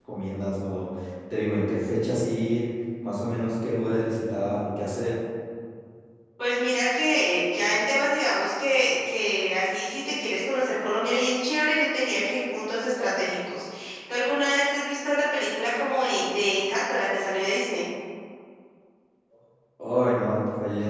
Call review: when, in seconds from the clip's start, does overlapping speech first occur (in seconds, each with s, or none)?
none